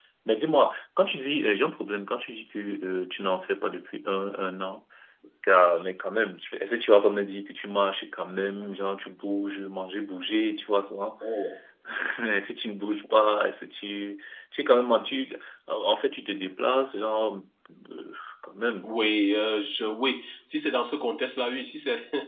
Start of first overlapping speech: none

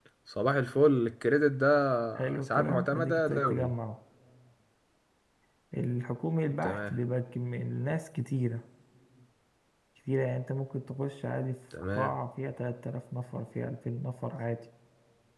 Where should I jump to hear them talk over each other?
2 s

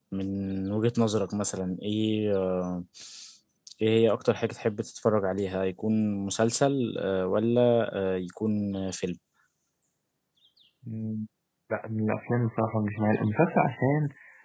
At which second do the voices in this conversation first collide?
none

